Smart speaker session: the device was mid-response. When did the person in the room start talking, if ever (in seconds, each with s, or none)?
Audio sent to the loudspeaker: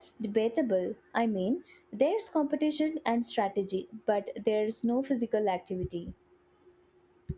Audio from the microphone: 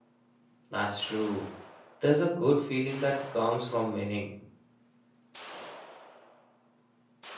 0.7 s